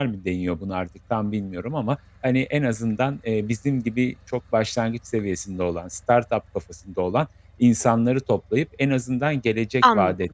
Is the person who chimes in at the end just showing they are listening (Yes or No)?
Yes